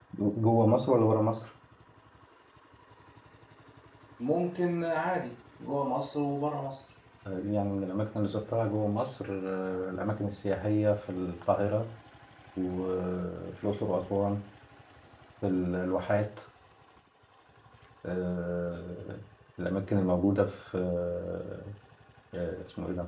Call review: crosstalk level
none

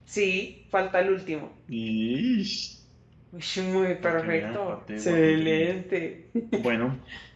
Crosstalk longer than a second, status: present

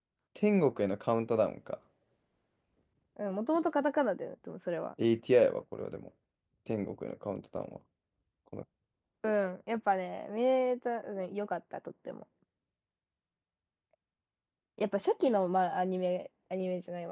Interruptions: none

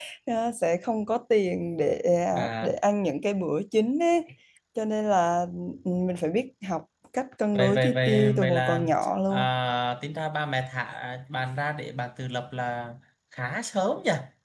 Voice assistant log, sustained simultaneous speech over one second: present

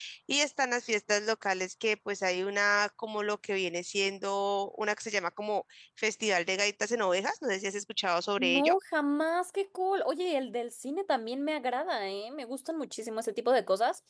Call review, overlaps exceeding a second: none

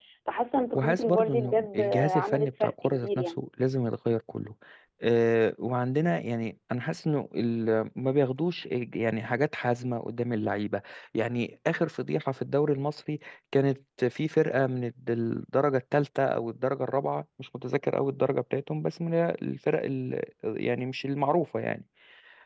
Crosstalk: present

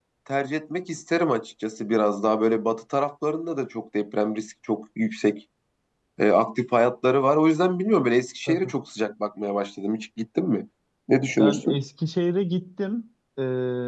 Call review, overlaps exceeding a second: none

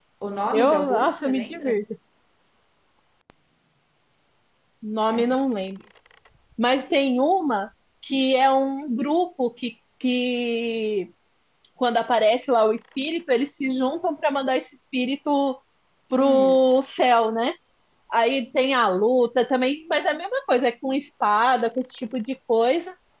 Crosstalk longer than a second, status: present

